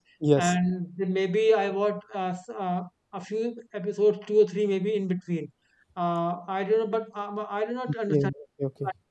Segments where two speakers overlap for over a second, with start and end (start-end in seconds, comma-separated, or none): none